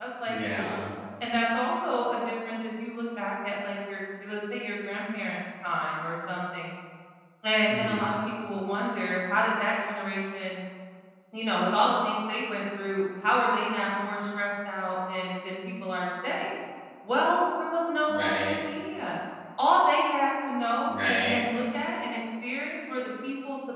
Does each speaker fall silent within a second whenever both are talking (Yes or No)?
Yes